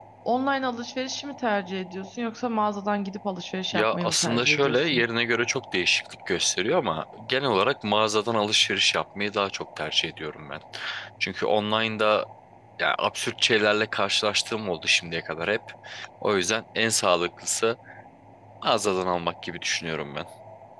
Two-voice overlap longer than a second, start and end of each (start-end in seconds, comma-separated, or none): 3.7-5.0